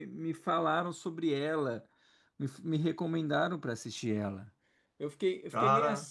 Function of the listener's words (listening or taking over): listening